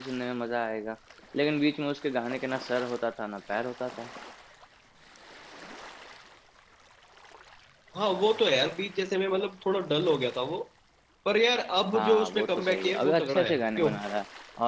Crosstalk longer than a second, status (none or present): present